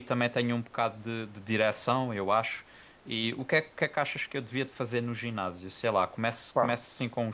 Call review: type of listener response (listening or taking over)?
listening